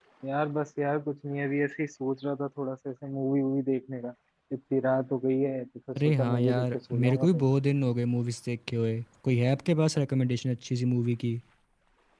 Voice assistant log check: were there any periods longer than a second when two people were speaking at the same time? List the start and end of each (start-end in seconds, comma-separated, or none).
6.0-7.4